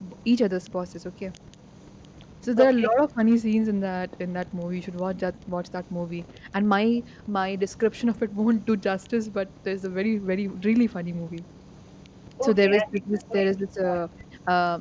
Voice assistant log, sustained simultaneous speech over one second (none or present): present